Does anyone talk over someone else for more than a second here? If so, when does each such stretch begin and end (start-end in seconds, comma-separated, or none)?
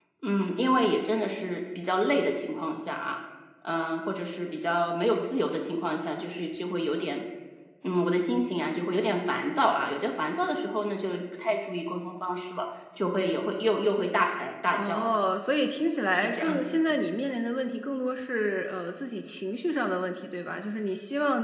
none